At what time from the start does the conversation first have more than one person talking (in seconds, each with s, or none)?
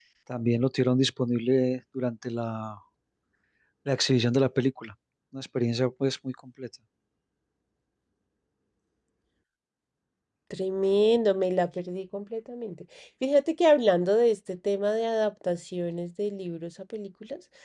none